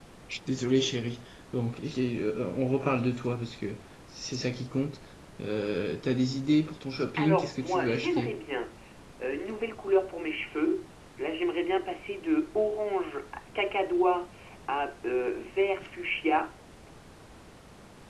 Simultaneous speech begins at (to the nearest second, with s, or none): 7 s